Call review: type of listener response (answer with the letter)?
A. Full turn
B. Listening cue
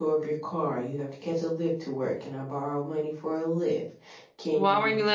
A